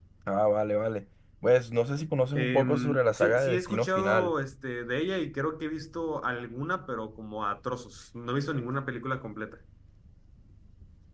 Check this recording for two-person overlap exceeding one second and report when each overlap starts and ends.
2.4-4.3

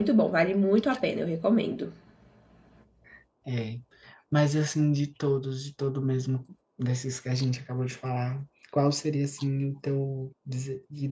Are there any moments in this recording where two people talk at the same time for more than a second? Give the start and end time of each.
none

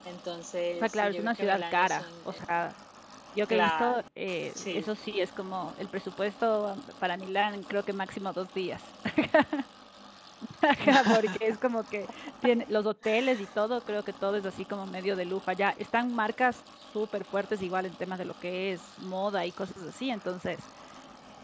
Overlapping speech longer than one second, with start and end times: 0.8-2.4

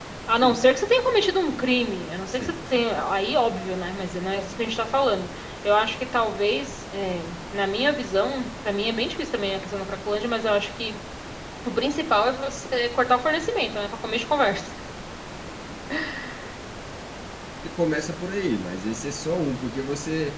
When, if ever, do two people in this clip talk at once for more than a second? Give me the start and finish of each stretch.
none

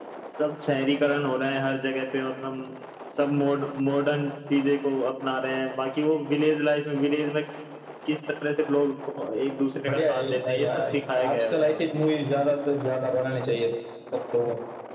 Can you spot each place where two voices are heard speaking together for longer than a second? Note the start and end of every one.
9.9-11.8

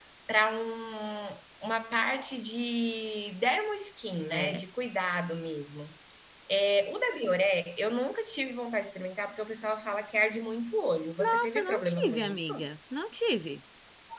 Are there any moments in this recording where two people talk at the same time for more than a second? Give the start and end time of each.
11.2-12.5

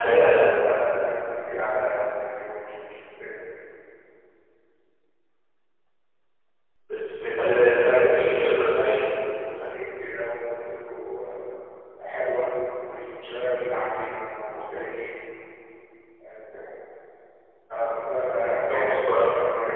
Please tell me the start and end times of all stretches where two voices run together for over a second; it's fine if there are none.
7.8-9.0

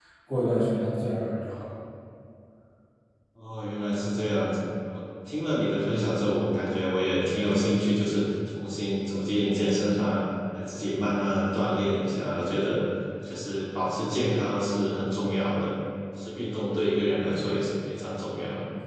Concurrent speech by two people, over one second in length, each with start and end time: none

